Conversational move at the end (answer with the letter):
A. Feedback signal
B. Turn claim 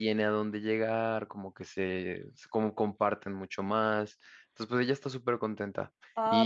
B